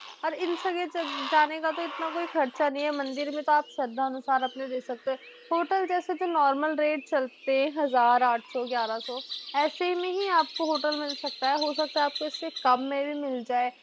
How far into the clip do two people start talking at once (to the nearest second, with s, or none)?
none